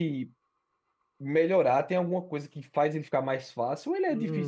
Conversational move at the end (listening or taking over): taking over